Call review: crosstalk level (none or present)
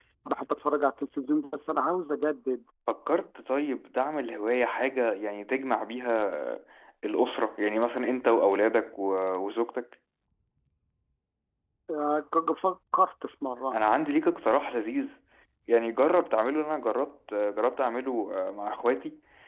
none